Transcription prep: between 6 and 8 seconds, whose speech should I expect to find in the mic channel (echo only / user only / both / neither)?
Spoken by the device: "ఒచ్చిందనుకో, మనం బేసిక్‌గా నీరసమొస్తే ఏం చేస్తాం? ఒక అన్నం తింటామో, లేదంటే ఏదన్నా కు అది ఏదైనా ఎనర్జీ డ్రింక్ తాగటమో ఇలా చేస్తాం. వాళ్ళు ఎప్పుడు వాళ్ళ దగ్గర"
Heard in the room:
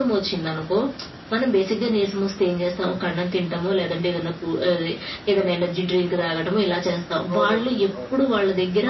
both